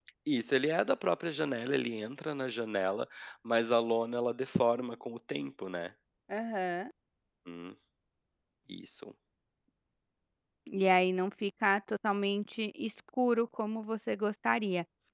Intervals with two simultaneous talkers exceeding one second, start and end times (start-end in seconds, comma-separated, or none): none